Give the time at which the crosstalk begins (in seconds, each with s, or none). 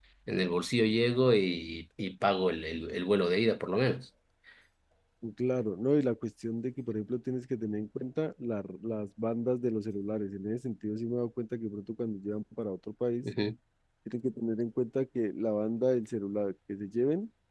none